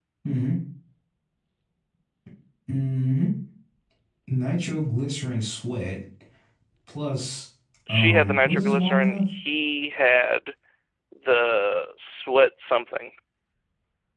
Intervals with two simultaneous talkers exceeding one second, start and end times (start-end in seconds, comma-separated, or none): 7.9-9.2